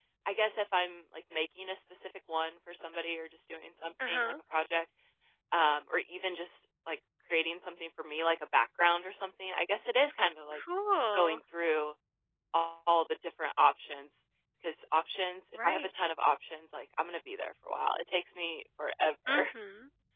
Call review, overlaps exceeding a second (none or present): none